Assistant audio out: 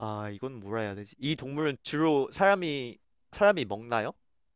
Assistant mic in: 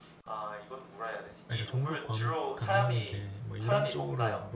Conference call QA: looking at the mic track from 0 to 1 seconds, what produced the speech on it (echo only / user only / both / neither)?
echo only